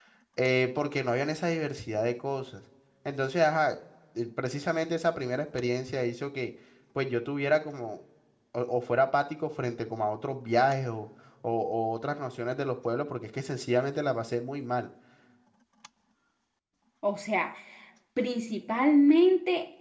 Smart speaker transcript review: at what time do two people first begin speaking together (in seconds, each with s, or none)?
none